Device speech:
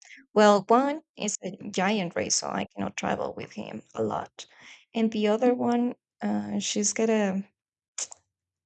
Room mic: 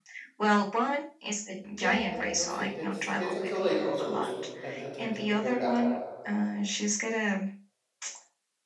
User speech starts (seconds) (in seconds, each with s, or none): 1.7 s